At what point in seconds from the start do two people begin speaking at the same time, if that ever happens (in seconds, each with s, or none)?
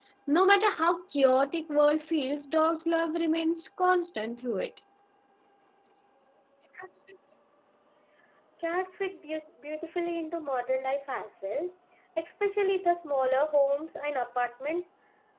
none